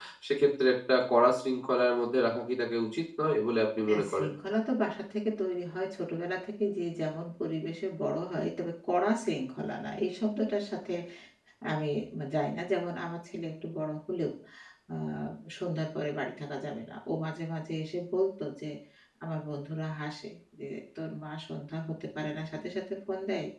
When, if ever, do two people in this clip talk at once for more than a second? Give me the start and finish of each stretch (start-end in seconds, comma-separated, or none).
none